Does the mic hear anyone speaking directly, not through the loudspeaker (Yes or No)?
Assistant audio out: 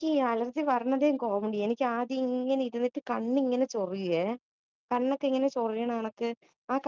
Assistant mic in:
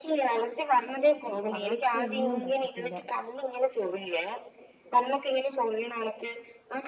Yes